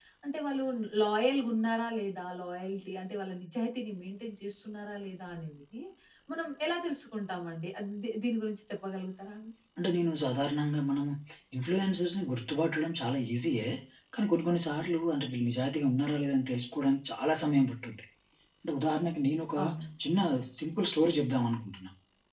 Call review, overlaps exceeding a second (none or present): none